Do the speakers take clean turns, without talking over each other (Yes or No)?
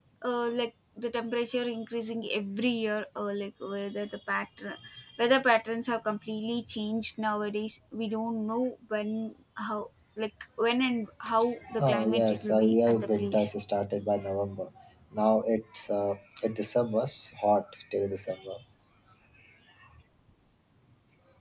No